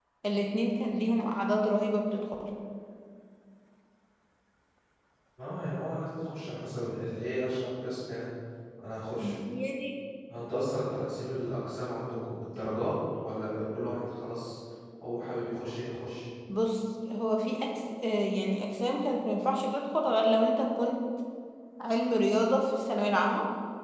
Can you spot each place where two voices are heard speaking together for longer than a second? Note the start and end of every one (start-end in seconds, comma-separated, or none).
none